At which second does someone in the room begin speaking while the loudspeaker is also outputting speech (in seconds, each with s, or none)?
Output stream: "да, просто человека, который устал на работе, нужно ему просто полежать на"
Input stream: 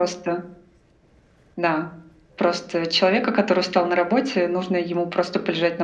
none